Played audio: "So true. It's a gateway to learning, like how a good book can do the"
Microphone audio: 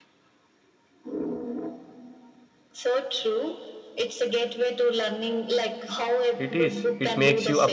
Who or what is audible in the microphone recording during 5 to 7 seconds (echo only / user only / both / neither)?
both